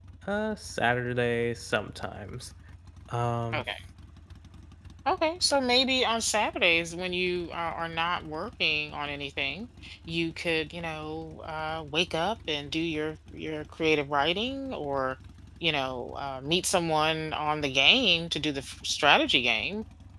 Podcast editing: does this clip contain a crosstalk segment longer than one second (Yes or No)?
No